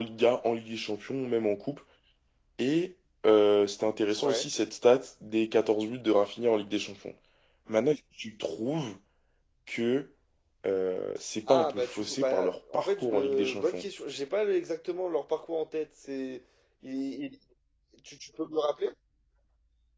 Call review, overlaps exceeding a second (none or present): present